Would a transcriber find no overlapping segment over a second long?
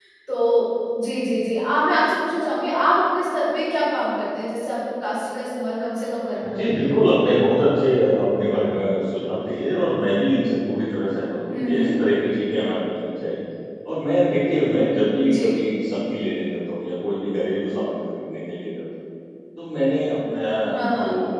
Yes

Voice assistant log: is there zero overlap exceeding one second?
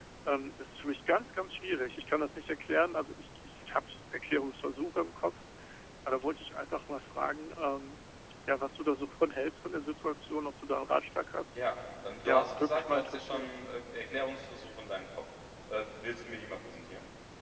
No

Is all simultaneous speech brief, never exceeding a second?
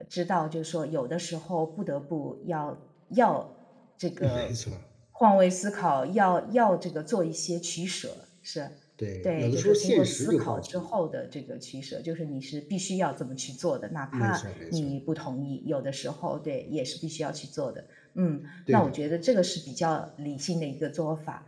No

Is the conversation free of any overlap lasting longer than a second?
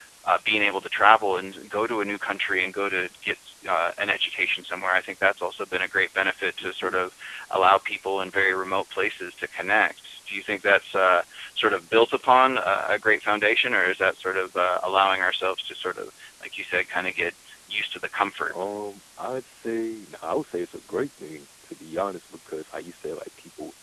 Yes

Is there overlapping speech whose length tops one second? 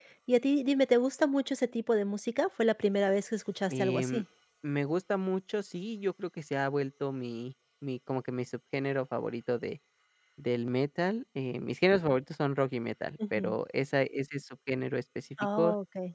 No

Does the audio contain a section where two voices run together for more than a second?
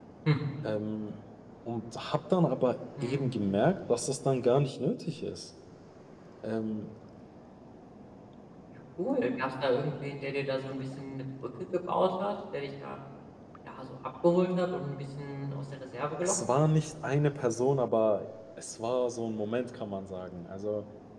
No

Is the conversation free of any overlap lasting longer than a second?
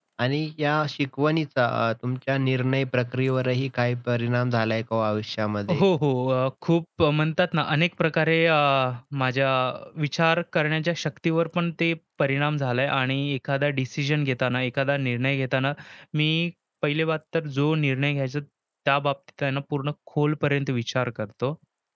Yes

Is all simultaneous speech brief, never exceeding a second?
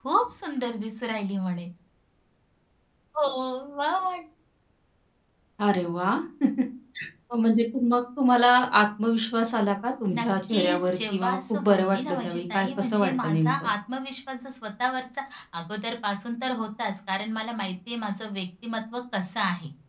No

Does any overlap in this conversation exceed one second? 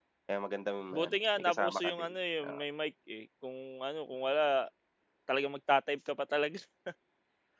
Yes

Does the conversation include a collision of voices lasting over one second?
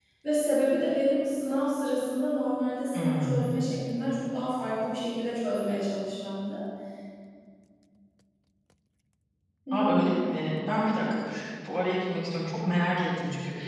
No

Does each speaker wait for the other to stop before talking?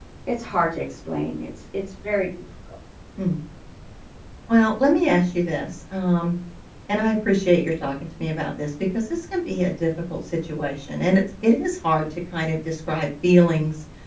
Yes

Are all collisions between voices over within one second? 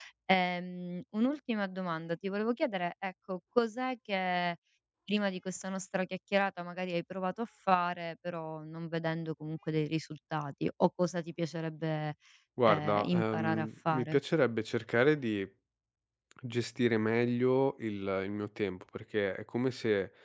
No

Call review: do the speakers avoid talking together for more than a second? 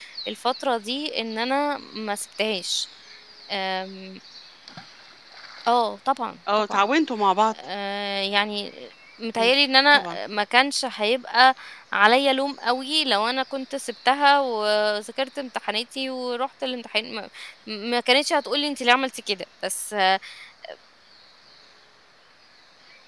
Yes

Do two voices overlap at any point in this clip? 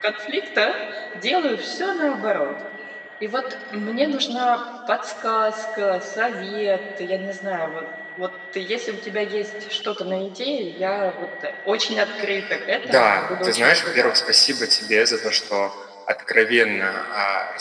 Yes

